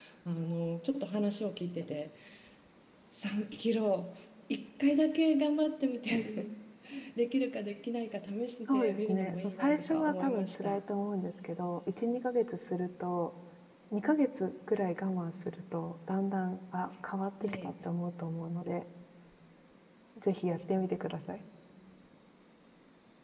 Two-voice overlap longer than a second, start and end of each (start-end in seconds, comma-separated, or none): 8.6-10.8